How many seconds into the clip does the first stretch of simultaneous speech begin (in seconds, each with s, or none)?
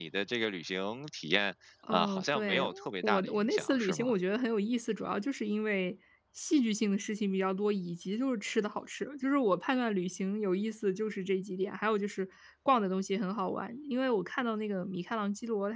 1.8 s